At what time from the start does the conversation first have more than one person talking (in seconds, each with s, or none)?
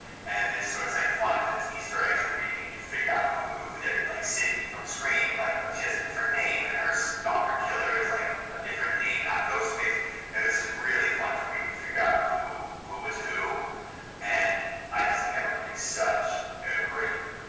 none